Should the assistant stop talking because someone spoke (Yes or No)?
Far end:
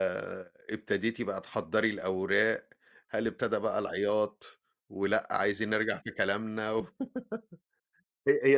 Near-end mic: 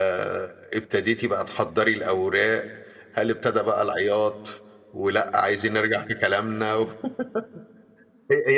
No